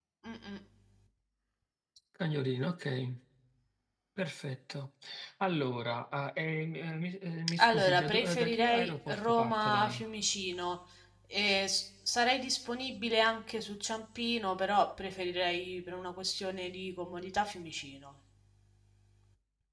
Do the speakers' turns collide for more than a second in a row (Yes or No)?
Yes